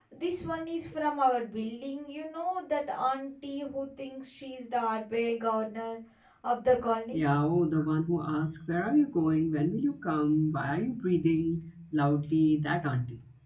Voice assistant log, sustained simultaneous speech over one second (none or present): none